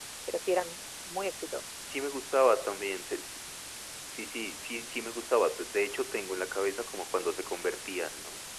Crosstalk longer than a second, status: none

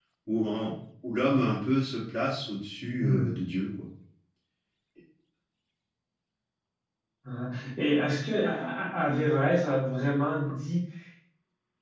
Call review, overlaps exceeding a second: none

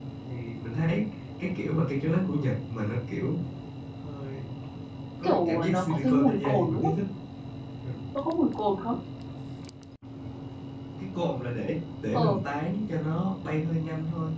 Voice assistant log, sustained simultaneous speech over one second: present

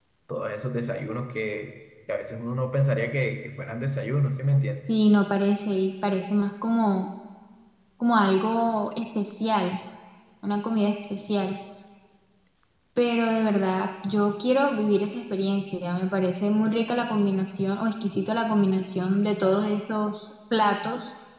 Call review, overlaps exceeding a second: none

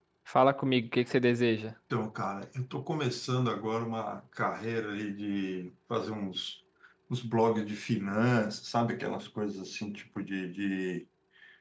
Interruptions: none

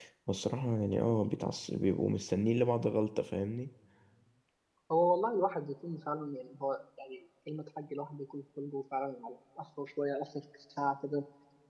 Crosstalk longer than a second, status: none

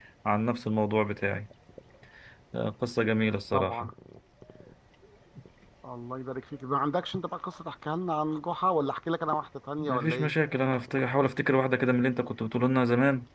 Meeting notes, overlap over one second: none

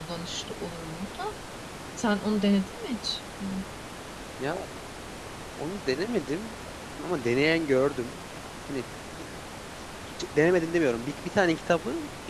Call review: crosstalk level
none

